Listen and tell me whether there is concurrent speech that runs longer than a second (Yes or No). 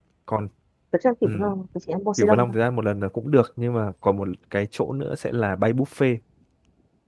No